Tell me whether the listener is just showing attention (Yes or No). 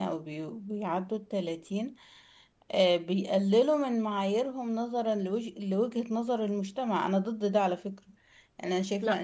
Yes